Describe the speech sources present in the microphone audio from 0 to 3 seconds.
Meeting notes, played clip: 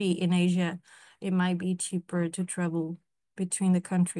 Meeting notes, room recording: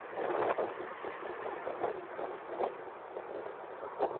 neither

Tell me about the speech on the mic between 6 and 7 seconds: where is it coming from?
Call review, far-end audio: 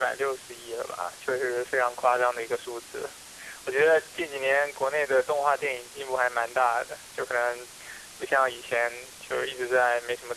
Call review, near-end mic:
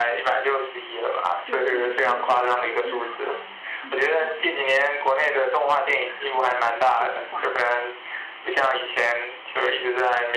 both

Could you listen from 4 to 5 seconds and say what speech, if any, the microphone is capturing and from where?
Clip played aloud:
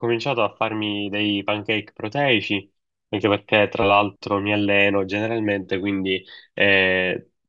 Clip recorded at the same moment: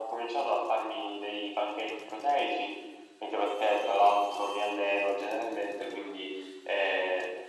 echo only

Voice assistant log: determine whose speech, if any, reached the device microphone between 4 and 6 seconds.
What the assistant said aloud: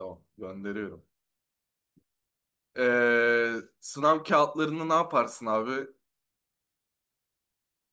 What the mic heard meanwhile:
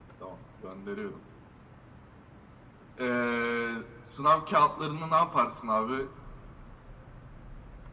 echo only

